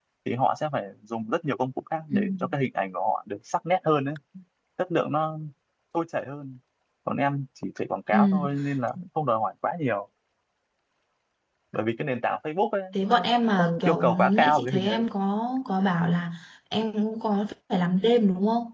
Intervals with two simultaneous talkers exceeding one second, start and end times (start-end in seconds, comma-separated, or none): 13.0-15.0